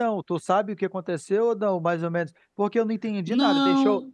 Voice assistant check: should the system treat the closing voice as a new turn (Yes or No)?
No